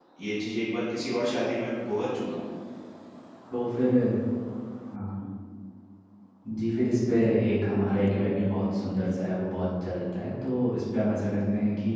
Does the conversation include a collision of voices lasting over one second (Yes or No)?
No